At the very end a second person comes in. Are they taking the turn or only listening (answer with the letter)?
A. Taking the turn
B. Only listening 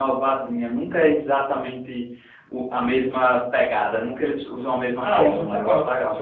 A